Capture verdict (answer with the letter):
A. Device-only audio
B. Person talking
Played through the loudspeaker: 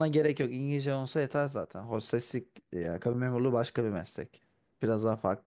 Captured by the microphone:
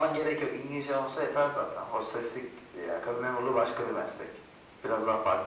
A